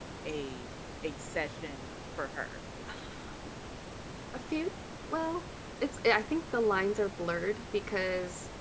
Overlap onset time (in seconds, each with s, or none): none